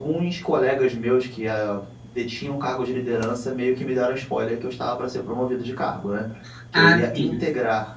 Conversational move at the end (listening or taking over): listening